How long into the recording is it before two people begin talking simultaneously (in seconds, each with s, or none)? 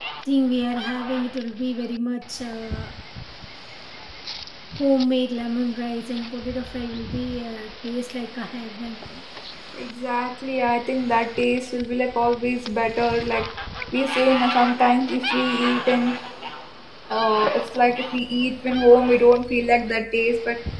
none